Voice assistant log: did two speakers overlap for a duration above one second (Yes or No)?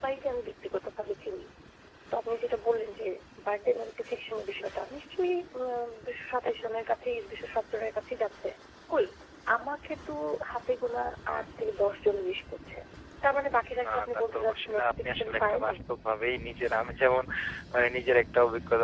Yes